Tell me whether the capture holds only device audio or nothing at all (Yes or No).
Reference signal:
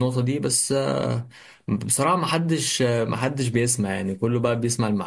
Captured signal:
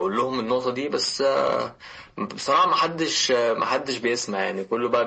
Yes